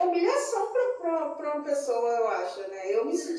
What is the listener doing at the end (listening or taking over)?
listening